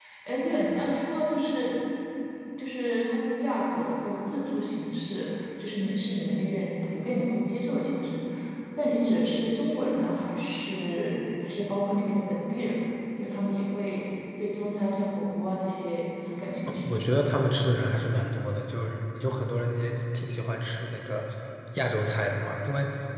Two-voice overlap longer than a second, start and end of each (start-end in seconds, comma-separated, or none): none